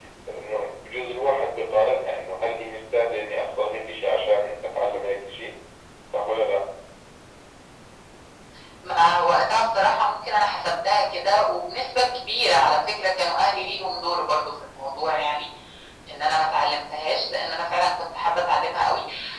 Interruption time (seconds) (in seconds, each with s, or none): none